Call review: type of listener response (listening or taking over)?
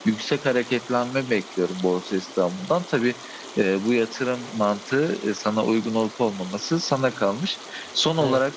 listening